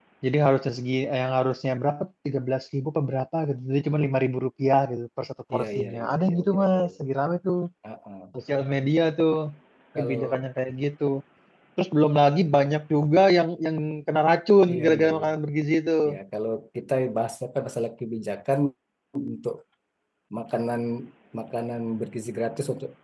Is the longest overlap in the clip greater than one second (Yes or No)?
Yes